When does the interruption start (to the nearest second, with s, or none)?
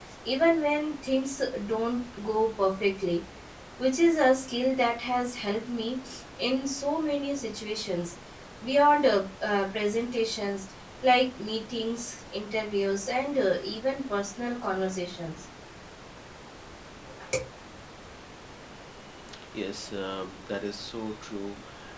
none